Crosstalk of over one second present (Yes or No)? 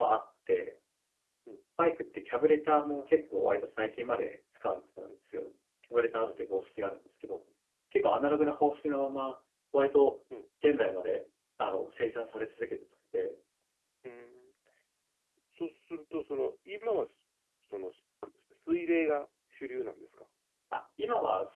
No